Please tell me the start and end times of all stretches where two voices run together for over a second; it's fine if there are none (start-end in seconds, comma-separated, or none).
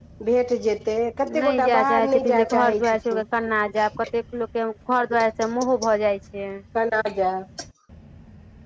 1.4-3.2